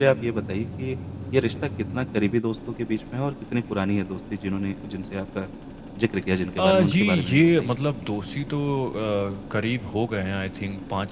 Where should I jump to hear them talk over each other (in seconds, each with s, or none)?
6.6 s